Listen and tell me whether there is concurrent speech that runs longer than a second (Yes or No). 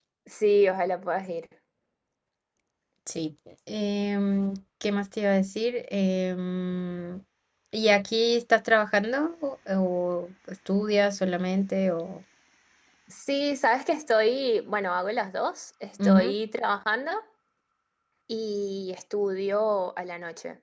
No